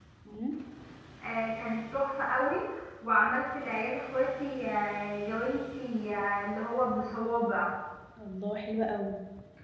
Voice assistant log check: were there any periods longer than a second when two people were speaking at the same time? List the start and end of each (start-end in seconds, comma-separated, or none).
none